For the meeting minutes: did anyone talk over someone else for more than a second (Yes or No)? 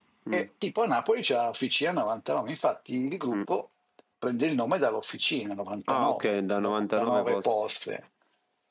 Yes